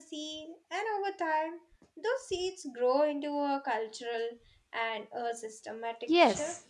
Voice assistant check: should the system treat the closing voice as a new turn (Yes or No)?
Yes